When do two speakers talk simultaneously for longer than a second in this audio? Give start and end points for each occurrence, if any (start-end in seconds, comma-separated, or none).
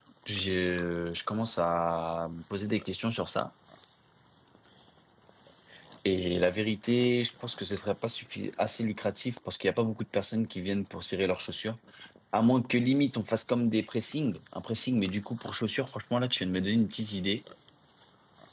none